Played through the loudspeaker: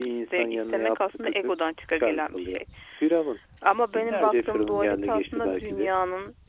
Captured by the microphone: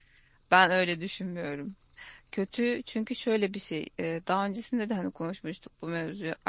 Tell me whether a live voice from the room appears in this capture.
Yes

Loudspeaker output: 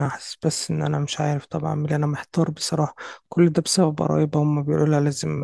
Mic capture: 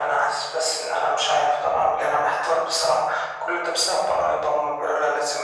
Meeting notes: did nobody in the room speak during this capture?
Yes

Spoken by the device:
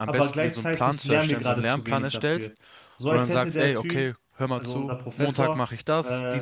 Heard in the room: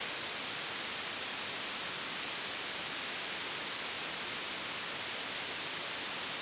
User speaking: No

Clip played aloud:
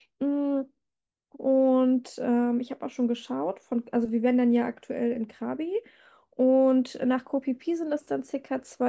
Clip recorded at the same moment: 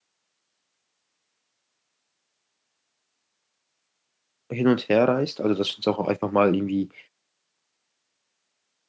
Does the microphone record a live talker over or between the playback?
Yes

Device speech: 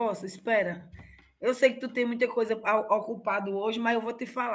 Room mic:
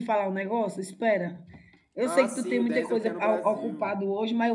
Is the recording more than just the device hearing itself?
Yes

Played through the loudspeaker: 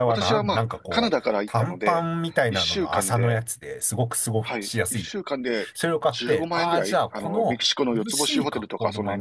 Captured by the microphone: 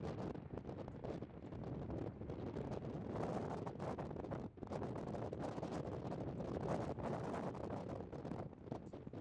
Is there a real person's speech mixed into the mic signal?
No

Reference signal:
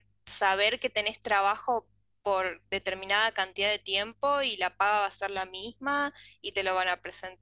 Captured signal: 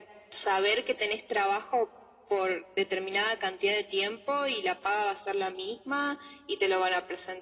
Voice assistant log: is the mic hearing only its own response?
Yes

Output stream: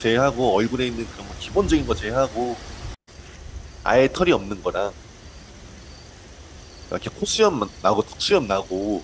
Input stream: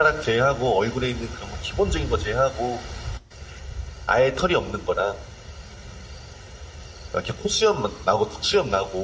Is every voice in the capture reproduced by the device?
Yes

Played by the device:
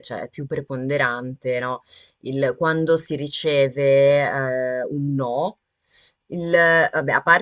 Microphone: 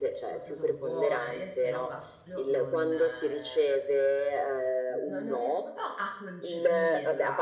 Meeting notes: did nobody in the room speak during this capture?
No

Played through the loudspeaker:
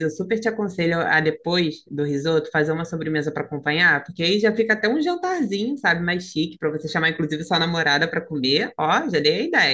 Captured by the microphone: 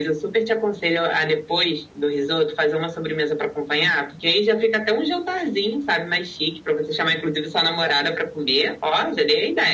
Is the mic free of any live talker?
No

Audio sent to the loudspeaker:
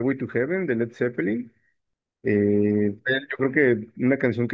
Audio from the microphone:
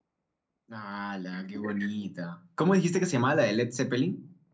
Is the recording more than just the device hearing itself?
Yes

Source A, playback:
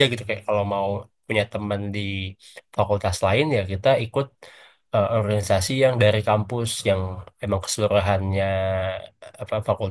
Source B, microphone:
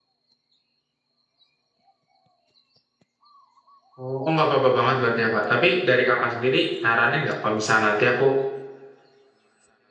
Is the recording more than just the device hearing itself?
Yes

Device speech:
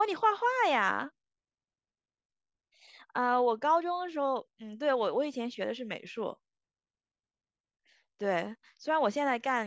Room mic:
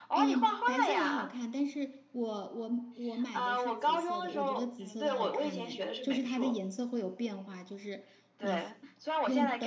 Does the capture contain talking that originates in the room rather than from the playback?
Yes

